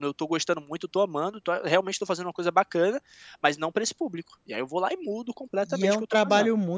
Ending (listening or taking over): taking over